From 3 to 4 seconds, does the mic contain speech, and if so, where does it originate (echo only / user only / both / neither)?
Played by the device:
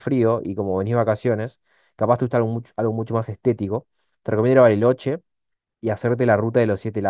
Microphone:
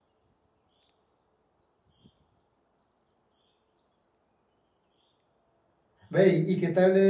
neither